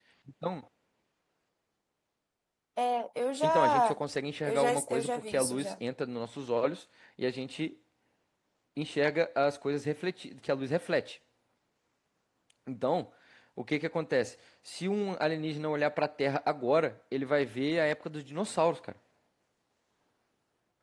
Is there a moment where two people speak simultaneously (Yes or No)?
Yes